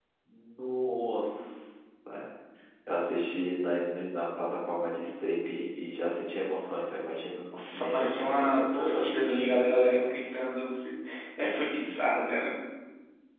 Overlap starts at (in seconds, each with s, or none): 7.5 s